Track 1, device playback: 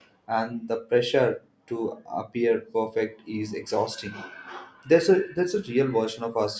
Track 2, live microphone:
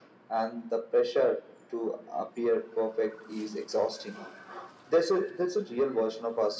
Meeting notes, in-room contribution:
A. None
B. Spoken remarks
A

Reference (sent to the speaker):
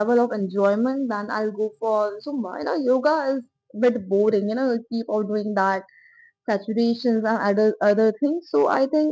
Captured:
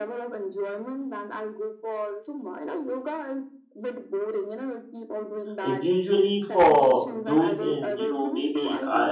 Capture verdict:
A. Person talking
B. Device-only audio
A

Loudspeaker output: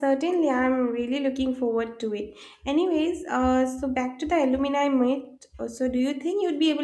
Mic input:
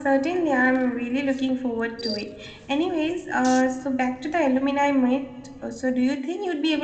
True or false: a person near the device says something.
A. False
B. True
A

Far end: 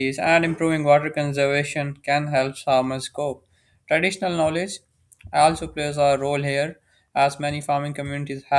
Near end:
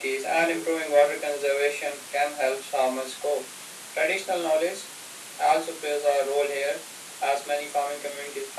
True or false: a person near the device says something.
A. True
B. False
B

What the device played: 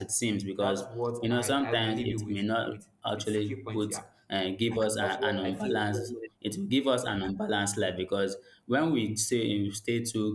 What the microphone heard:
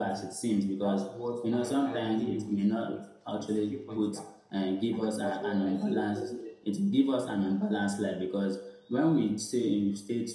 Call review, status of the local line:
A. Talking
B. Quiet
B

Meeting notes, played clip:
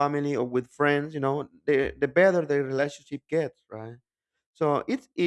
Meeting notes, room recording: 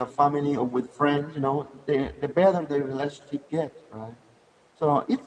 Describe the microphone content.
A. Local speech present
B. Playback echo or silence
B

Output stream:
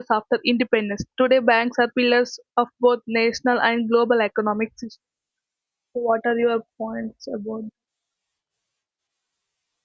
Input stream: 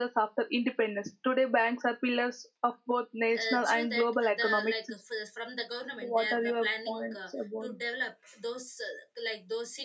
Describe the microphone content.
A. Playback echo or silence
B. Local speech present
B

